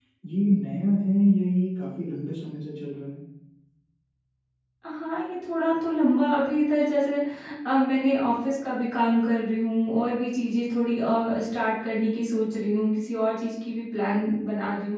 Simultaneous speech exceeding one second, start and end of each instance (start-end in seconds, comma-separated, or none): none